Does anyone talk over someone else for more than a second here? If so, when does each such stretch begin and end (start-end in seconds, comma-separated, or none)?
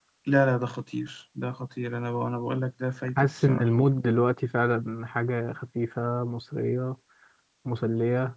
none